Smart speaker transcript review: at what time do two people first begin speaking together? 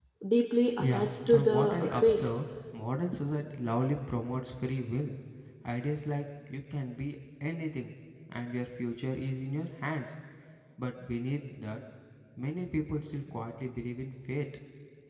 0.8 s

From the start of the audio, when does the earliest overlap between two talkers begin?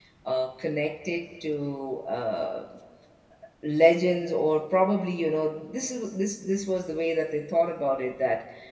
none

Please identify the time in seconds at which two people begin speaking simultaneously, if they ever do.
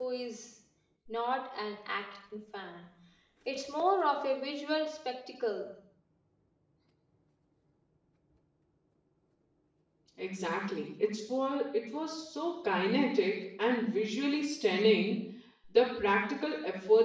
none

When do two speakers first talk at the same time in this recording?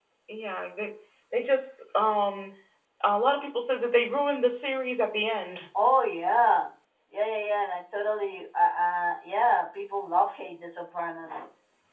none

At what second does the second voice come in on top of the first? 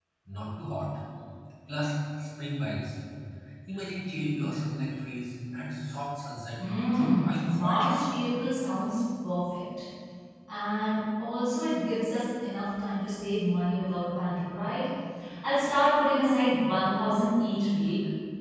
6.6 s

